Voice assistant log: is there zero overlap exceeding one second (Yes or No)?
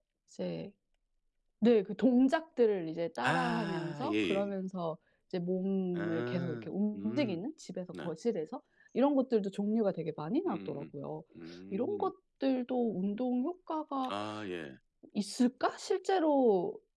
No